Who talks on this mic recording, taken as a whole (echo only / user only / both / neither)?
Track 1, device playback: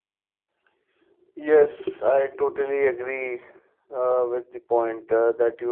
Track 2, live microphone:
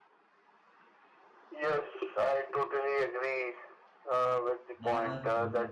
both